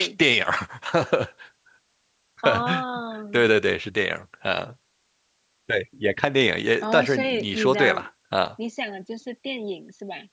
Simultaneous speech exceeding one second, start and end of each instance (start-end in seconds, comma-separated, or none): 6.8-8.1